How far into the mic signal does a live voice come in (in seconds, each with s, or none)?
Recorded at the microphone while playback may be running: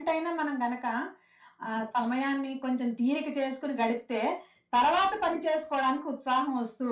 none